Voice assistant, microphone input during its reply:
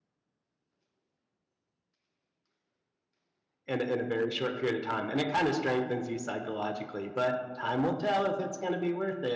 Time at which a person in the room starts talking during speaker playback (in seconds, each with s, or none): 3.6 s